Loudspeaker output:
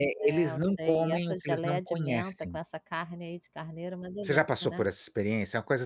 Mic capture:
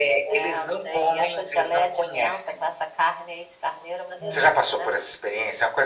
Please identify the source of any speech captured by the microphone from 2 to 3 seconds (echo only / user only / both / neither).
echo only